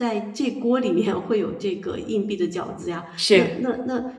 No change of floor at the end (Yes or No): Yes